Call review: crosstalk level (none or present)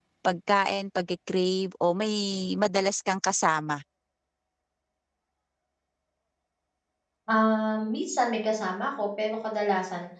none